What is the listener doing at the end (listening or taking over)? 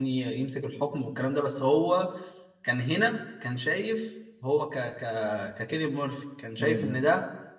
listening